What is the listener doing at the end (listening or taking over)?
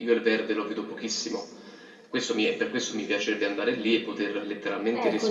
taking over